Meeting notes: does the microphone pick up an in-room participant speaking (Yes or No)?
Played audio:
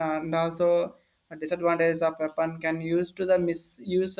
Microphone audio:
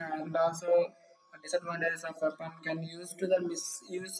No